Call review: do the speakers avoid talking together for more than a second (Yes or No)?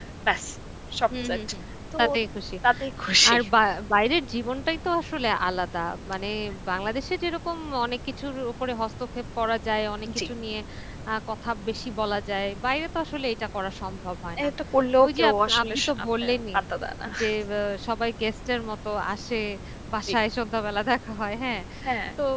No